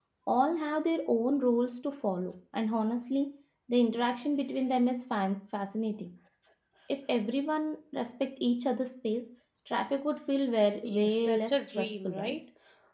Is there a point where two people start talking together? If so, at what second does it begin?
10.8 s

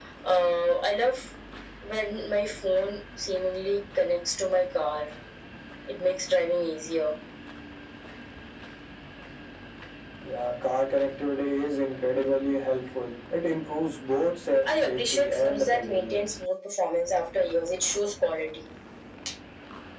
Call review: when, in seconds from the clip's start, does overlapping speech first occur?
14.7 s

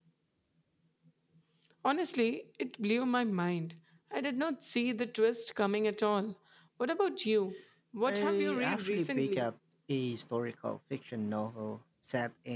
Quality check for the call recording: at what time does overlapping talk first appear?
8.1 s

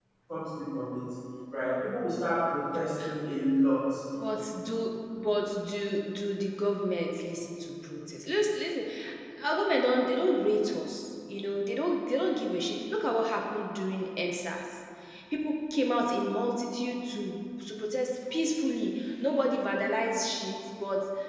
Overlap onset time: none

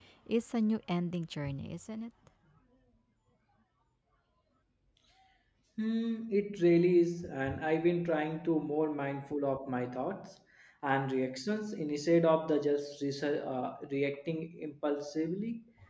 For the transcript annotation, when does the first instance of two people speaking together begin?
none

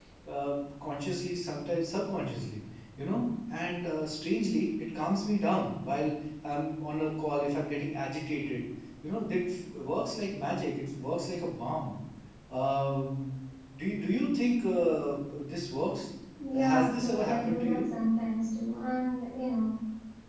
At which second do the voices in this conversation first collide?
16.5 s

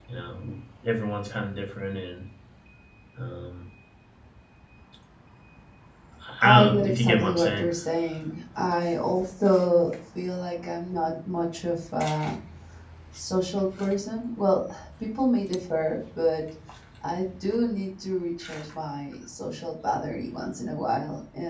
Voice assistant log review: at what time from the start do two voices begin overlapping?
6.4 s

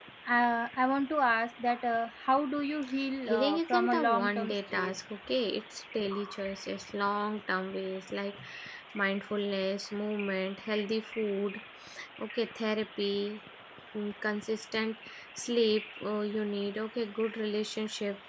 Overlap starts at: 3.3 s

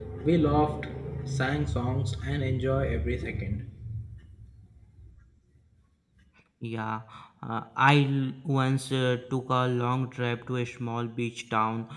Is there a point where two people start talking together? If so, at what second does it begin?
none

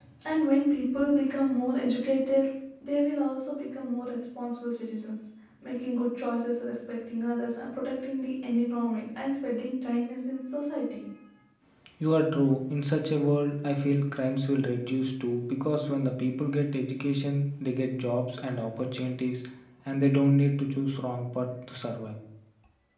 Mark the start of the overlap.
none

